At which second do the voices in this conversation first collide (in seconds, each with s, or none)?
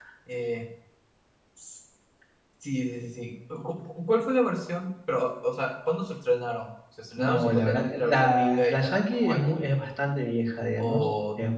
7.2 s